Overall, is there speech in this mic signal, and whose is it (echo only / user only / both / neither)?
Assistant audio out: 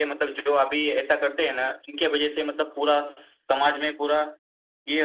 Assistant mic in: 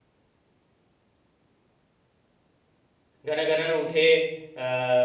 user only